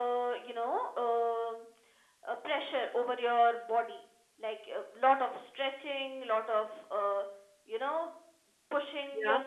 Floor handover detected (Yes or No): No